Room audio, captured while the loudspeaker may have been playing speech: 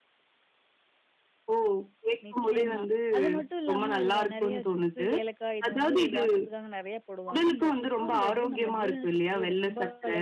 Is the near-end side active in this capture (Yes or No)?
Yes